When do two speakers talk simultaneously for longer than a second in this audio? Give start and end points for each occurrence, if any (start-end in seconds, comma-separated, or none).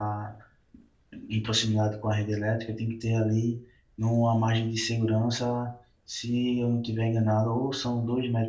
none